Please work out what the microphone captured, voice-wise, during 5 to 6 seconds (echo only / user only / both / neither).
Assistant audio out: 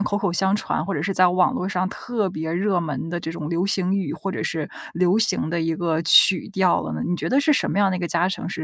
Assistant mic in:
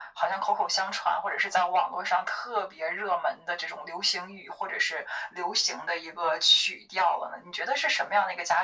echo only